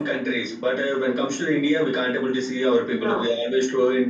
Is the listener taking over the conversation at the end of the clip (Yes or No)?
No